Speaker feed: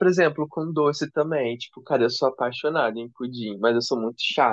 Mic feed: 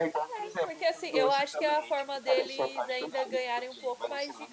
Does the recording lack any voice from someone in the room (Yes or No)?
No